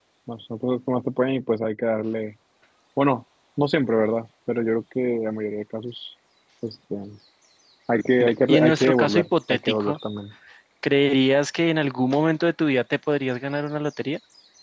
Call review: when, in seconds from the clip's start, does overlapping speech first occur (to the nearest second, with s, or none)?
8 s